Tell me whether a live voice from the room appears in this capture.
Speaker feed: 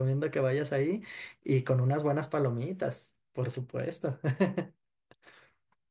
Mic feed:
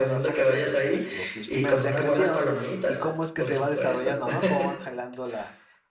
Yes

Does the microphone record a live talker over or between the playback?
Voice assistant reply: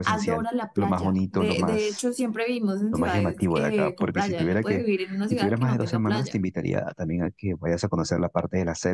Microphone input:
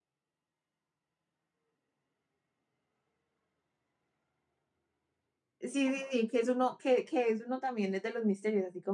Yes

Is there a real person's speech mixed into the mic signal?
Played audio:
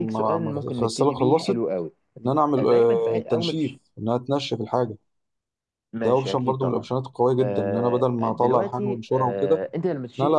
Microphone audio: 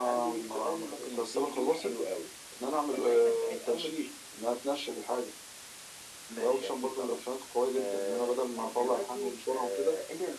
No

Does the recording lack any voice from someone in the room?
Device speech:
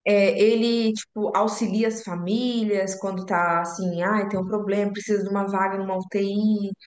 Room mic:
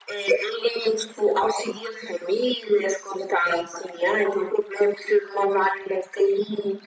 Yes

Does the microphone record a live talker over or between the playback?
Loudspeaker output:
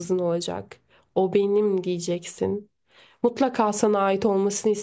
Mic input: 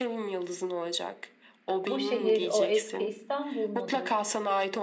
Yes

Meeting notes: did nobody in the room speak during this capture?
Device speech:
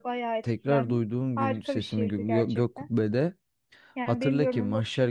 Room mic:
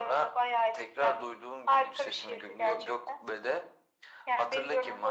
Yes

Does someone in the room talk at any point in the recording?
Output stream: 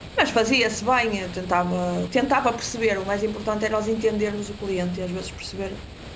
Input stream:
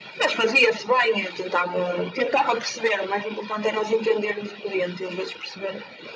No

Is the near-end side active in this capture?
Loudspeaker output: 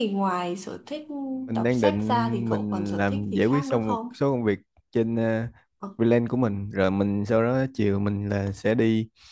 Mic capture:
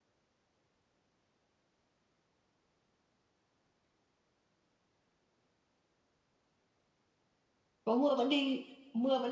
Yes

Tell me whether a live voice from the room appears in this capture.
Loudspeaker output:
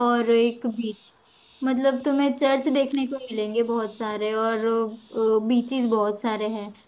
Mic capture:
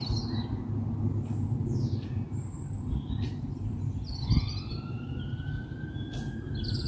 No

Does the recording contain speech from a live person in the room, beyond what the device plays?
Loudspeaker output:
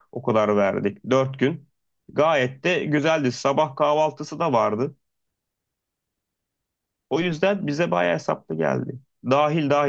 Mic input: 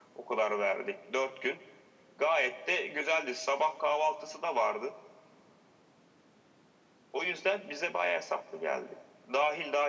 No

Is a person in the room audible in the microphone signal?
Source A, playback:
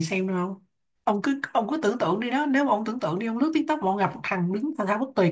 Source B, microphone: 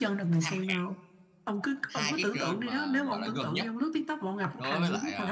Yes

